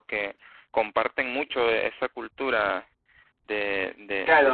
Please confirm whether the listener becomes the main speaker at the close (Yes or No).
Yes